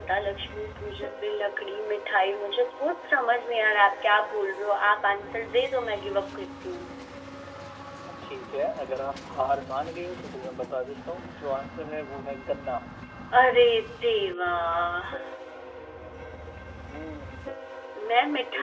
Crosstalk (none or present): none